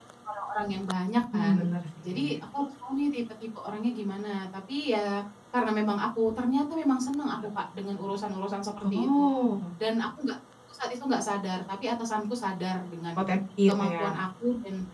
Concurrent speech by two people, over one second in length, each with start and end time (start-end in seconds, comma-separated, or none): none